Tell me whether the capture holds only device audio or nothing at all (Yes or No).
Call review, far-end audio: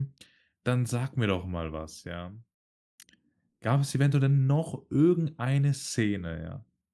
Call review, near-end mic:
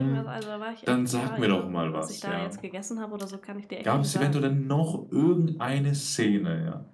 No